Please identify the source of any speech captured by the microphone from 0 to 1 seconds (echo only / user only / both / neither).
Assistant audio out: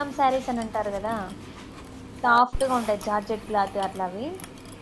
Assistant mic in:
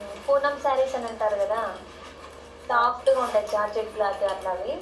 echo only